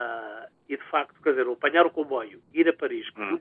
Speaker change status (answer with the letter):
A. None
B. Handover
A